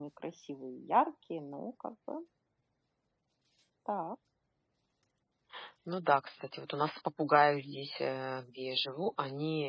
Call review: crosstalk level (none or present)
none